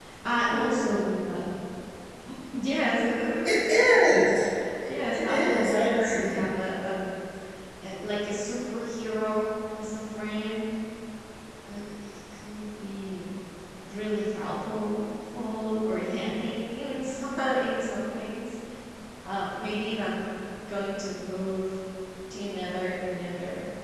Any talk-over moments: Yes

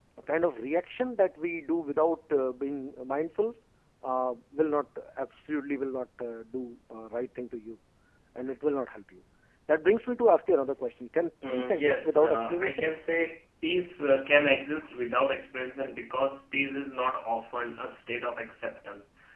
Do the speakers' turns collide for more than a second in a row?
Yes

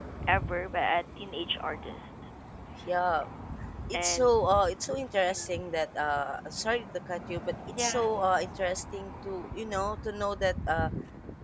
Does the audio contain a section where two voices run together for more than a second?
No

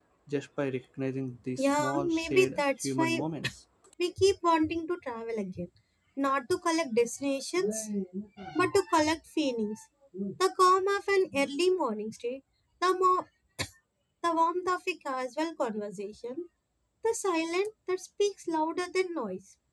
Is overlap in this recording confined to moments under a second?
No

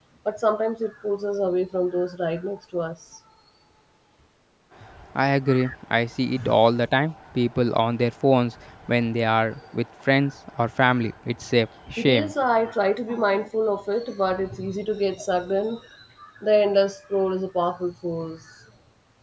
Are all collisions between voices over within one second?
Yes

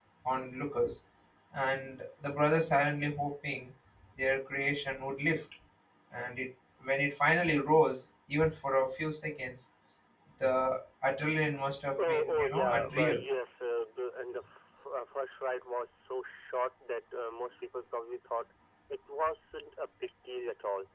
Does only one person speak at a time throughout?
No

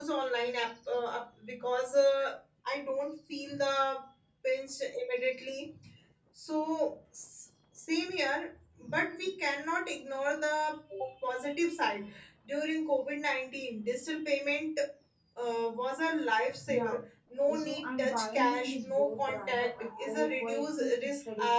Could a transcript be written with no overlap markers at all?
No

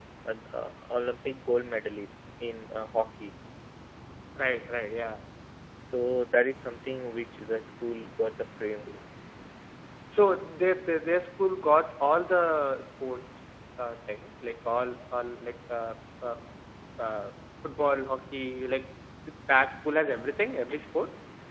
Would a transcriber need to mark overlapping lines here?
No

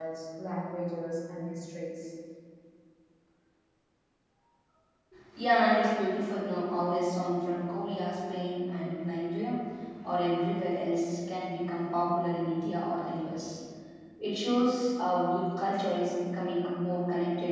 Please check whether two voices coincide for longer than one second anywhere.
No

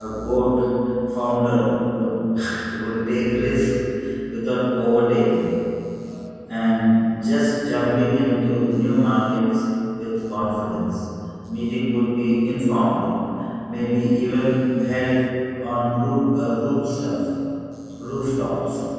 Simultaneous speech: No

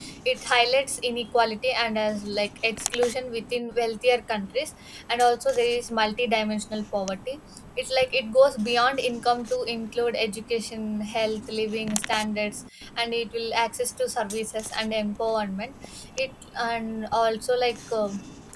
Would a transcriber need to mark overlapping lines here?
No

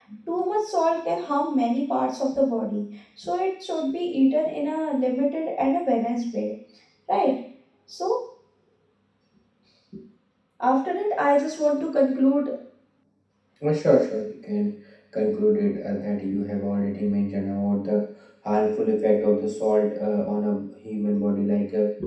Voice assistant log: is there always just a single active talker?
Yes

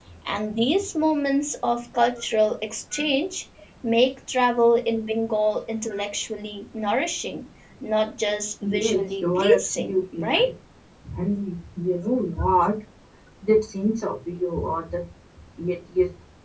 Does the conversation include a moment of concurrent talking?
Yes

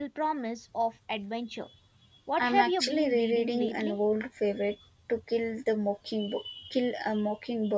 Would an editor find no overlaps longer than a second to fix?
No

